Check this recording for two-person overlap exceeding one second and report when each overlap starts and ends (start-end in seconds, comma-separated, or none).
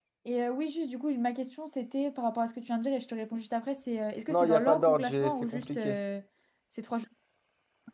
4.3-6.0